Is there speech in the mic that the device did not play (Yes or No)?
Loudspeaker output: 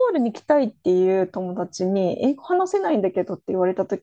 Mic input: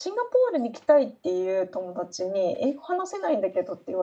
No